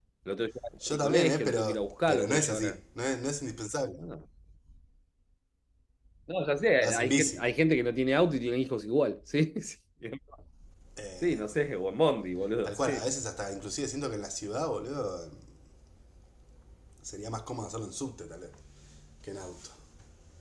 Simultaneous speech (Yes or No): Yes